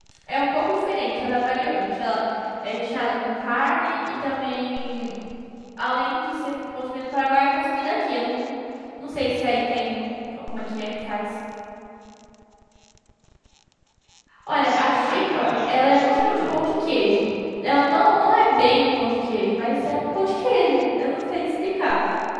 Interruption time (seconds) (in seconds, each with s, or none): 14.6 s